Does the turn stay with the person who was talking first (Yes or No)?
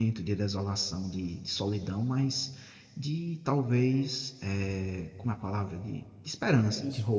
No